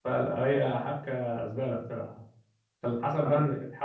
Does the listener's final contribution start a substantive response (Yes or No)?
No